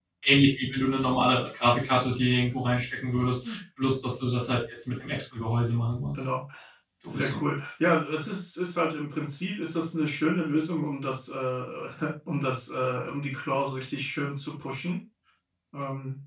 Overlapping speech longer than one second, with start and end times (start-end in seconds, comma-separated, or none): none